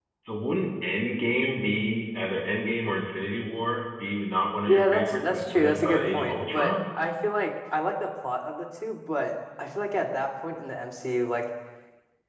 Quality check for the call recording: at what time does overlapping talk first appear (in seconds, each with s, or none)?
4.7 s